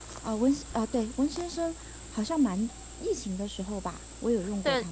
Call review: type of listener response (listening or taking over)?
taking over